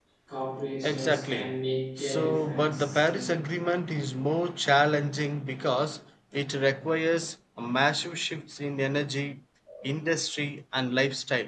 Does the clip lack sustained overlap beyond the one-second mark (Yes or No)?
No